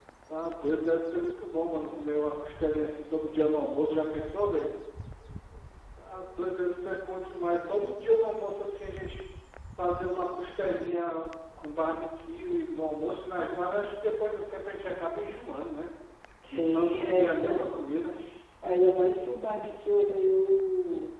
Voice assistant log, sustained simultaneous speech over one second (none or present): present